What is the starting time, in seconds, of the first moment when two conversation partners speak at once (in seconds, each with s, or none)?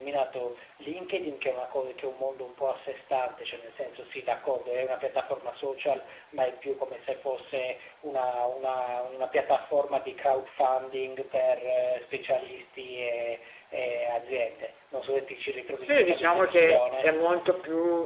15.8 s